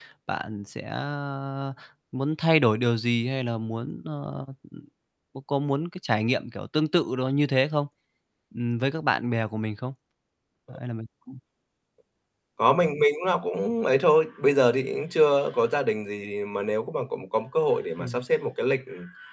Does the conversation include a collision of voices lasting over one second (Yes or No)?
No